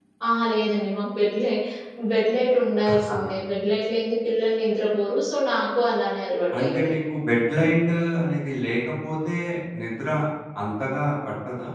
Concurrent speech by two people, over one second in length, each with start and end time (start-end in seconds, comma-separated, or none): none